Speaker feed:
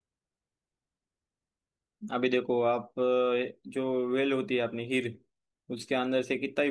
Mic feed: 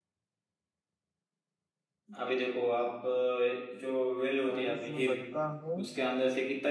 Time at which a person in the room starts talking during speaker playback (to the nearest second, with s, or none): 4 s